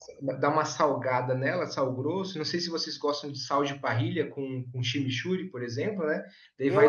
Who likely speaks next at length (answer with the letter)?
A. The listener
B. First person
A